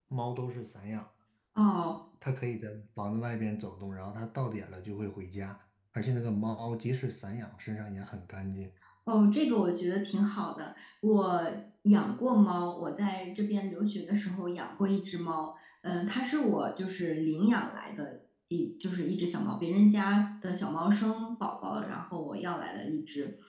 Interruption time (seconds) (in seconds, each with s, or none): none